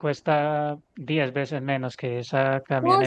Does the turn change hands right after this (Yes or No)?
Yes